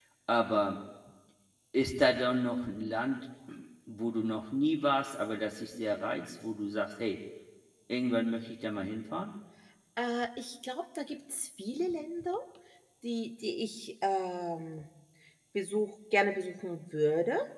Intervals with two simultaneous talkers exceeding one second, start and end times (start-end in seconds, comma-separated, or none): none